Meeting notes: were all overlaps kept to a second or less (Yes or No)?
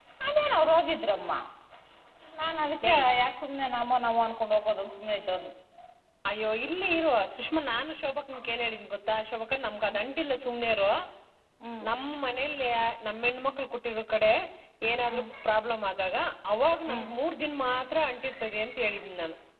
Yes